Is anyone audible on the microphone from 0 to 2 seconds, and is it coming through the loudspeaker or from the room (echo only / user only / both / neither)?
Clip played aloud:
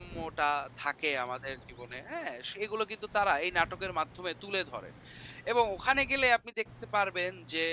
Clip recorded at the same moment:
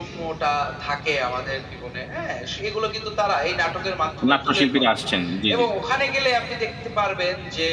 echo only